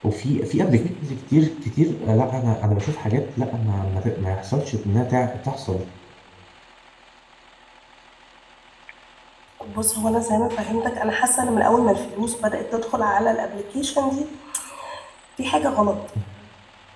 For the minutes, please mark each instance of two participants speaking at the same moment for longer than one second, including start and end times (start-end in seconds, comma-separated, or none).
none